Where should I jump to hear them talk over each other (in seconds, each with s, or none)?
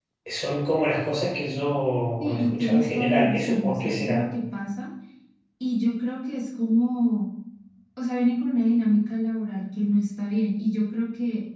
2.2 s